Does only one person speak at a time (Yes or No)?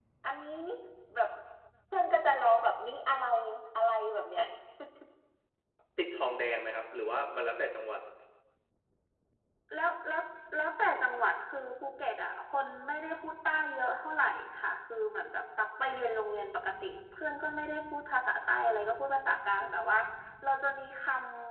Yes